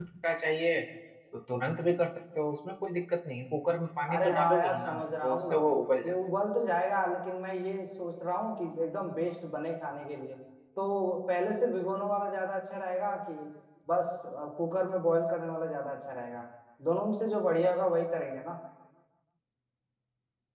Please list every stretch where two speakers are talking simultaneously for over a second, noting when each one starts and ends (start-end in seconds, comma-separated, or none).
4.1-5.6